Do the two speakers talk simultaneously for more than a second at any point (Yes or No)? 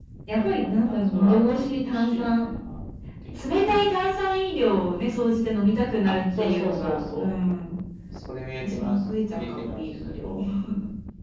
Yes